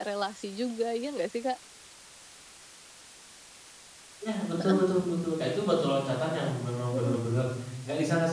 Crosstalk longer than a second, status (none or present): none